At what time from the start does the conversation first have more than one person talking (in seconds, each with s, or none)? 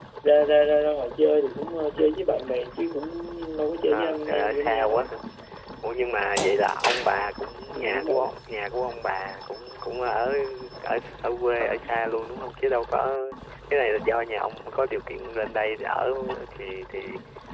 3.9 s